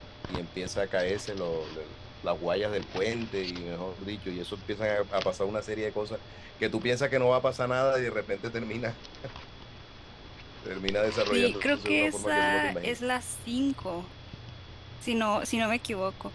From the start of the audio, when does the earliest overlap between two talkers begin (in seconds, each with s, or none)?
11.3 s